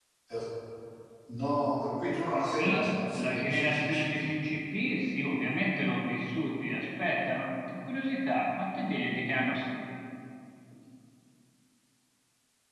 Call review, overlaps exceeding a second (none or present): present